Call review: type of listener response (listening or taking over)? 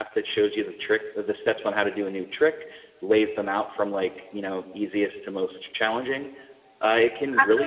listening